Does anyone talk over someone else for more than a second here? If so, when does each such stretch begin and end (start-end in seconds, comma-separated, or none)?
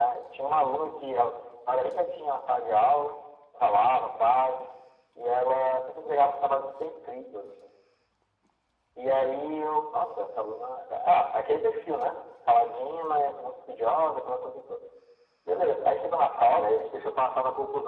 none